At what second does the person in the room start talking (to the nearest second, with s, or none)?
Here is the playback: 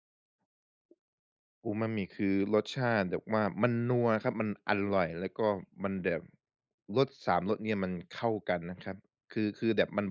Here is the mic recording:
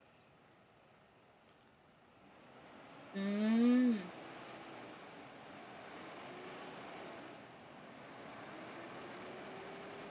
3 s